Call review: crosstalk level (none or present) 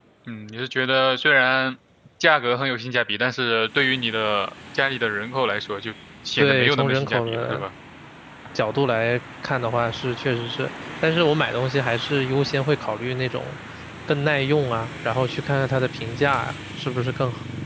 present